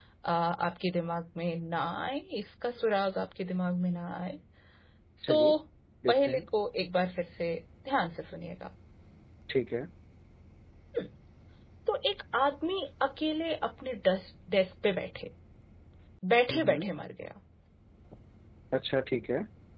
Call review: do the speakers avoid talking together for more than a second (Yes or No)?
Yes